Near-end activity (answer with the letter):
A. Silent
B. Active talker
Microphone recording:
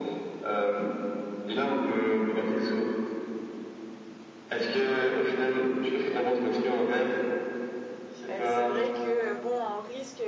B